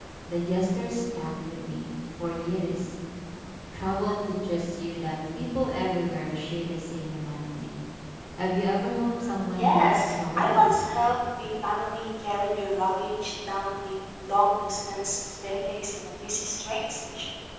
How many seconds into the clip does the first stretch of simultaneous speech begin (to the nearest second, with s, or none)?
9 s